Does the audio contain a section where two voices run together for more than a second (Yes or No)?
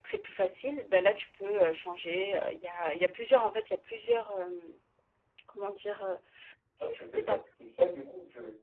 No